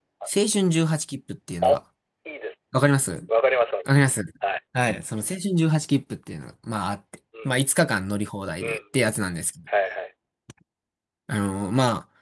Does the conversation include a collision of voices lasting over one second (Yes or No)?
No